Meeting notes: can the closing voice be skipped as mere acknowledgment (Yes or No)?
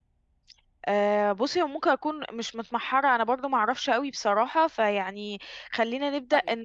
No